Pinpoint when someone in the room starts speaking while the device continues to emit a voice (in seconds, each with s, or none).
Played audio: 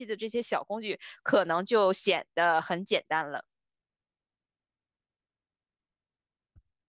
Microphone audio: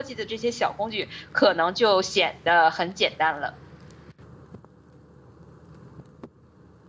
none